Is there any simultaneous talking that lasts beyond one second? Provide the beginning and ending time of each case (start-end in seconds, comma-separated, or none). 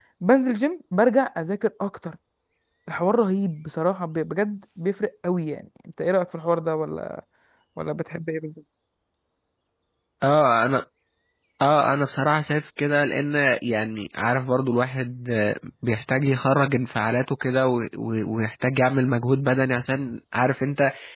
none